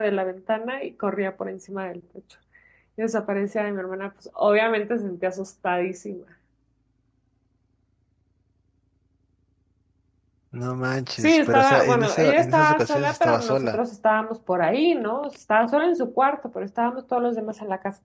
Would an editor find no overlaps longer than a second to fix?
No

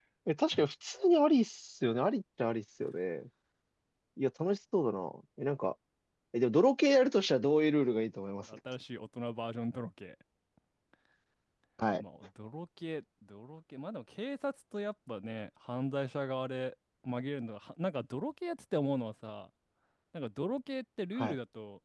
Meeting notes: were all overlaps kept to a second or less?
Yes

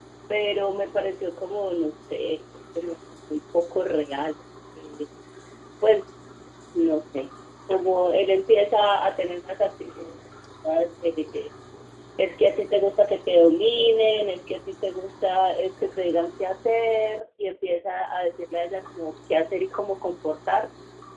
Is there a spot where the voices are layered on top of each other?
No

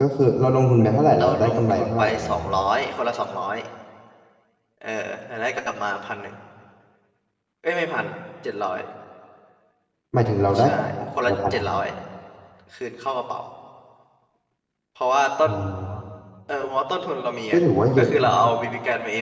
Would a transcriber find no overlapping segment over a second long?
No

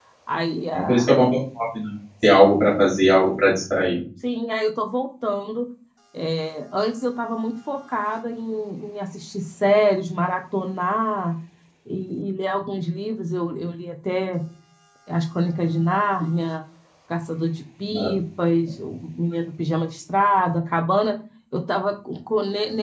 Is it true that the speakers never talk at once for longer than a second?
Yes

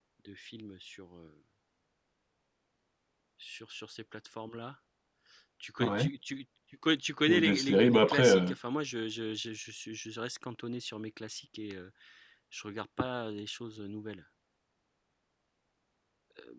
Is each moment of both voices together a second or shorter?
No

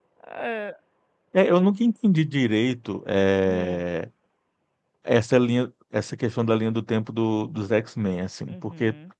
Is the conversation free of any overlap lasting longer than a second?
Yes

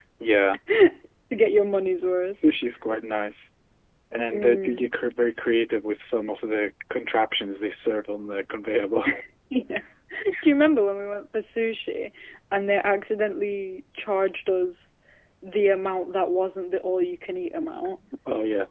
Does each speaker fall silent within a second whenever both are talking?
Yes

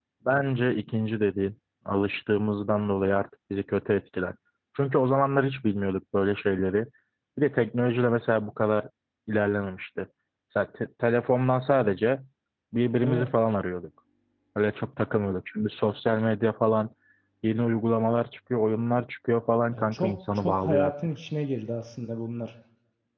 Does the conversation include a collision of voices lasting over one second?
Yes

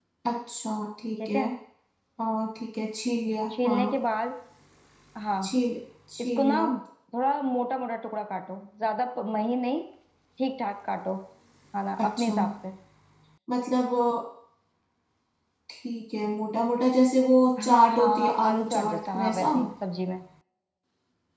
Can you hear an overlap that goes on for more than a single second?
Yes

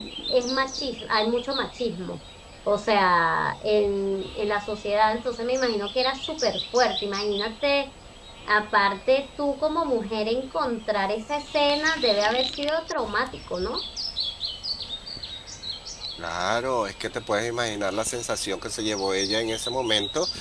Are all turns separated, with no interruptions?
Yes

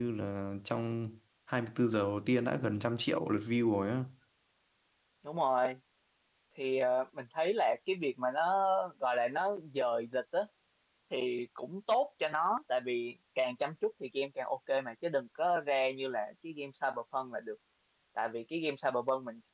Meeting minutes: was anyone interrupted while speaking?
No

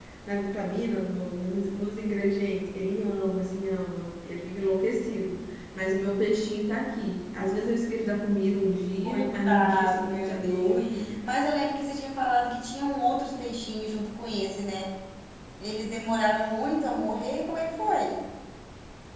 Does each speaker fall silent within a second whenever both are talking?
No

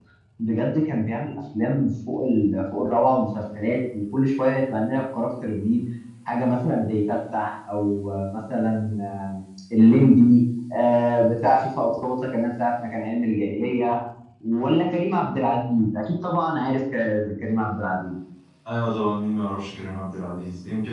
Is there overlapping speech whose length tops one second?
No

